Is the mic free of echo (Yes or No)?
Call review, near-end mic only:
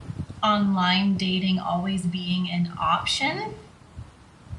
Yes